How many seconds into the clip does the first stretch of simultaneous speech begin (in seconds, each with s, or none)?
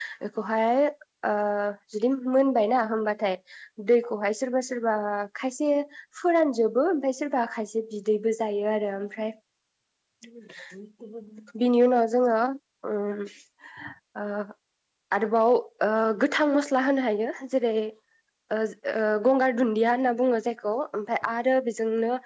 none